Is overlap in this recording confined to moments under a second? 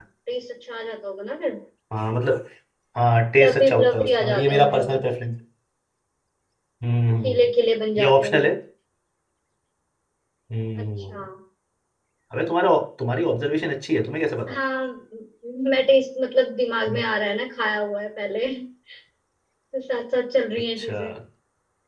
No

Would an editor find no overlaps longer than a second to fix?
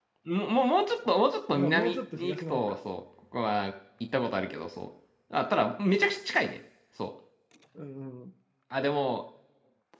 No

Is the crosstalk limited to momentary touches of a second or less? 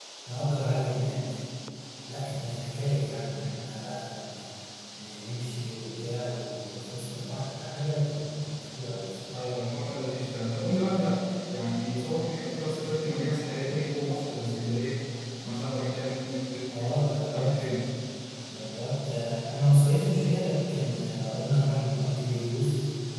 Yes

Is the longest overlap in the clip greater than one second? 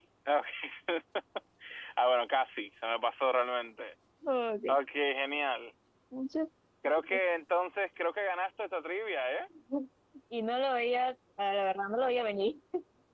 No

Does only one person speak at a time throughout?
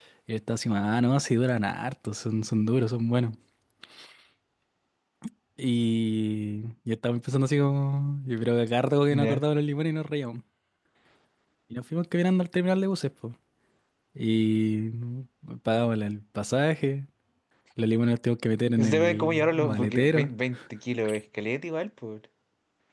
No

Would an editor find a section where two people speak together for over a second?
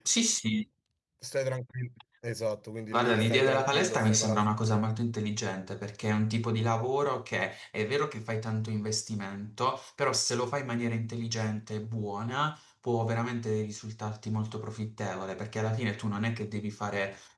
Yes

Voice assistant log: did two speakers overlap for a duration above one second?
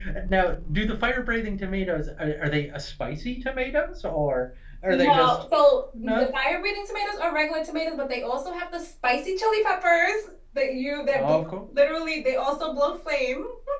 No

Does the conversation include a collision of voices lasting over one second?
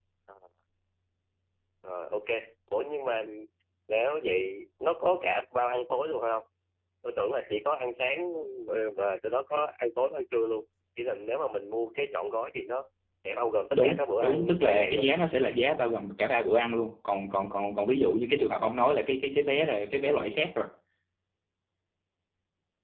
Yes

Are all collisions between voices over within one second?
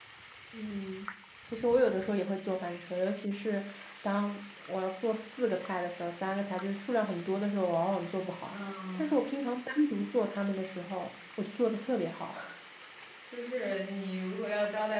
Yes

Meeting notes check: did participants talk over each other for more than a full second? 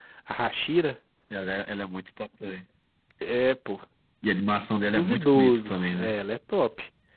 Yes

